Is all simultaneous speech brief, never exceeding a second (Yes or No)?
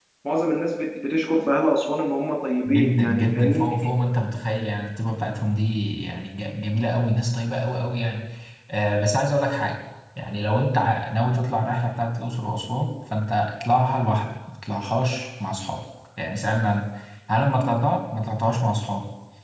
No